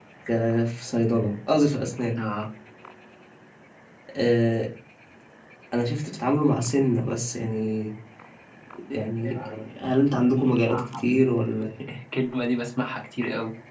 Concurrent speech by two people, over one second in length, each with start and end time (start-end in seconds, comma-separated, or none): none